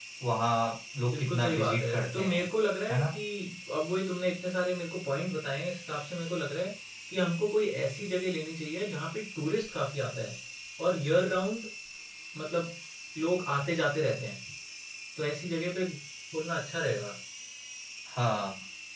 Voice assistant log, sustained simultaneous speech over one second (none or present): present